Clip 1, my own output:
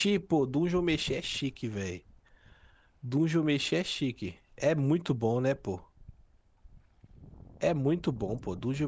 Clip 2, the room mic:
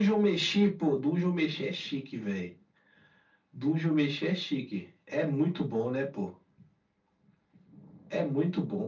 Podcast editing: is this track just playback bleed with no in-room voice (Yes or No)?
Yes